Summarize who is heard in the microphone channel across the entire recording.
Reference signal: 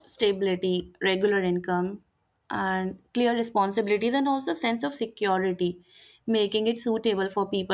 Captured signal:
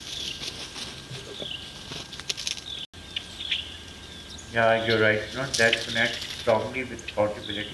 user only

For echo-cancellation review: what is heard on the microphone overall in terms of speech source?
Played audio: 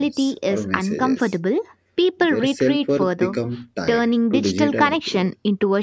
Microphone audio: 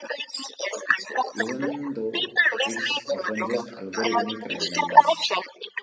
both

